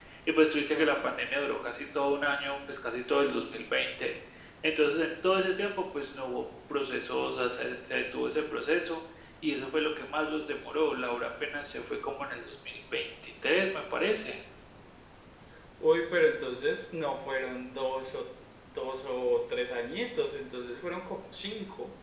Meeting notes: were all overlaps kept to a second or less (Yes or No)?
Yes